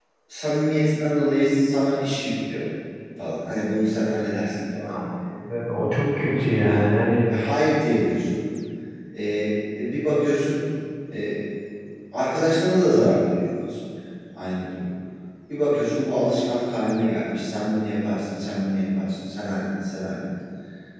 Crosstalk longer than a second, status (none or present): none